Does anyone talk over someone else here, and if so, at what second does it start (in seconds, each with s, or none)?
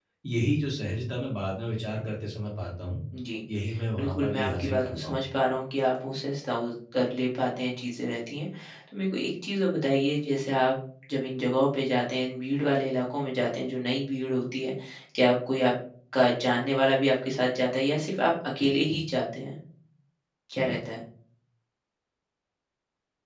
4.0 s